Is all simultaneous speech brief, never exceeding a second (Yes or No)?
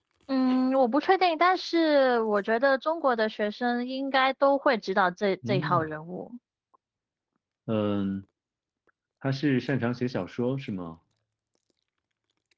Yes